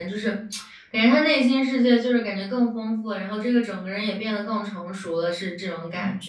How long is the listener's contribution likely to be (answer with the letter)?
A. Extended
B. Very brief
A